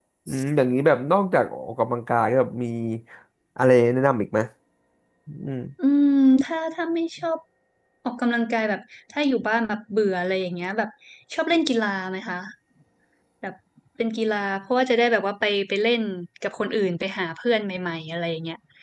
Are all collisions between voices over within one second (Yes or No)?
Yes